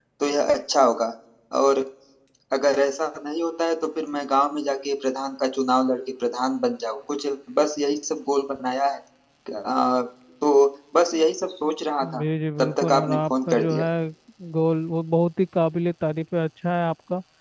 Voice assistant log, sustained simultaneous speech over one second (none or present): present